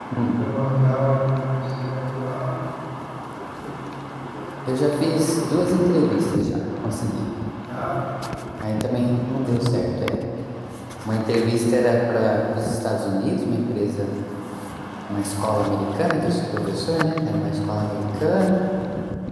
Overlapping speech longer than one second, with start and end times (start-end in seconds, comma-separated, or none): none